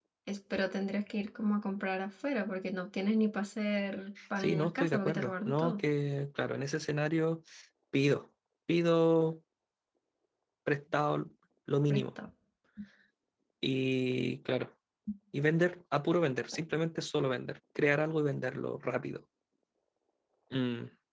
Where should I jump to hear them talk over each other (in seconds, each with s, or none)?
4.4 s